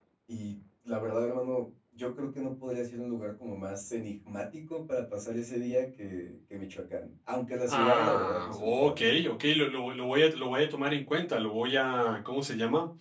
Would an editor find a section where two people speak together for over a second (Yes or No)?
Yes